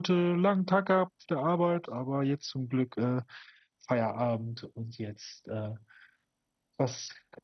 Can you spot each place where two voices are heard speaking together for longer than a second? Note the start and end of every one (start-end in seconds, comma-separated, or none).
none